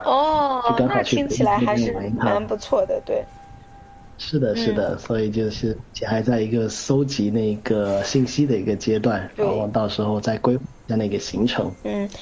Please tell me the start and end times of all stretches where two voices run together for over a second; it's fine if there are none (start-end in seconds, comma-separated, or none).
0.7-2.5